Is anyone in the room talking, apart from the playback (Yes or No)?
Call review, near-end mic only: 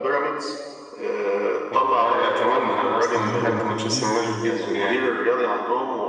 Yes